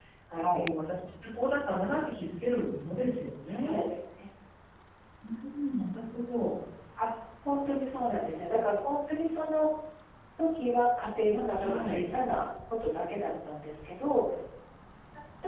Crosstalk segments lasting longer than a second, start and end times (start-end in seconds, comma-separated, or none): none